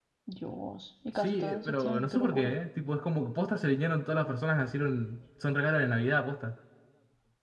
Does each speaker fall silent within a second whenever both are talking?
No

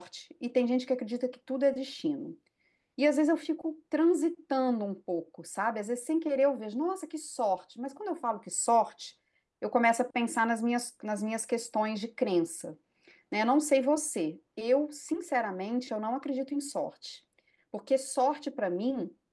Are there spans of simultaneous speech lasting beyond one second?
No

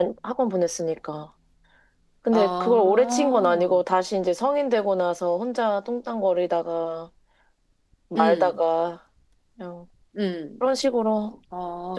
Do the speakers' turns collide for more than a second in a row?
Yes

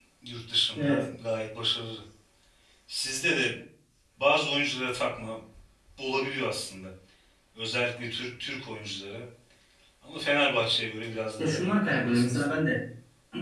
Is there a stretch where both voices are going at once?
Yes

